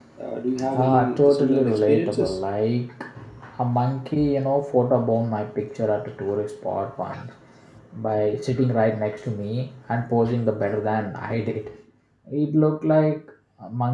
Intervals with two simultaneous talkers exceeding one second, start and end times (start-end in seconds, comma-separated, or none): 0.8-2.4